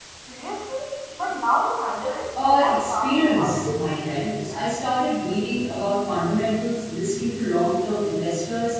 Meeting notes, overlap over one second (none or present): present